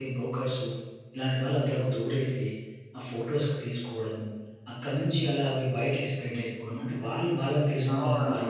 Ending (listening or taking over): listening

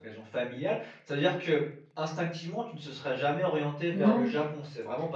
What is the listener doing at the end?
listening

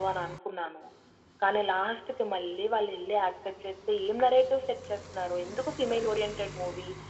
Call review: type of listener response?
listening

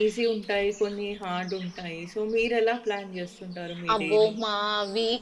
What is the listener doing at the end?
taking over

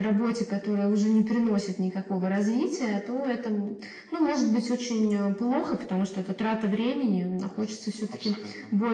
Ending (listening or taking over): listening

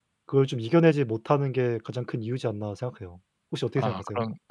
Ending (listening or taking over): taking over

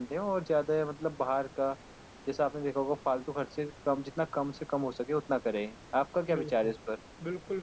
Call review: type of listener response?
taking over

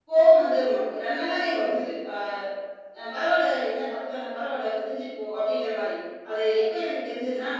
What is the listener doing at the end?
listening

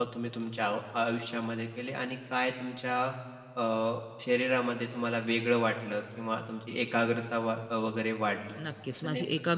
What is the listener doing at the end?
taking over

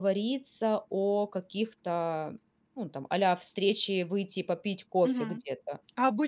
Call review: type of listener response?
taking over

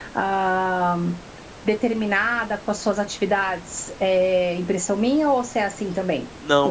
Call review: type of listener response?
taking over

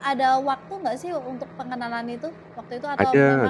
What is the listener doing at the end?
taking over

